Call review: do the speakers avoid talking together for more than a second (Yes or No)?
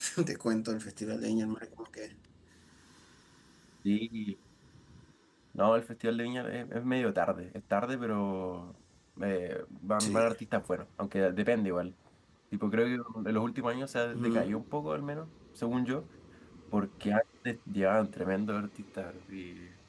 Yes